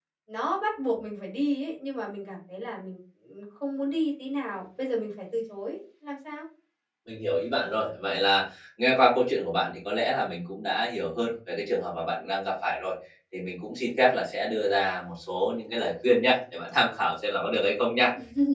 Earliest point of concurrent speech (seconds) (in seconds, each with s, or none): none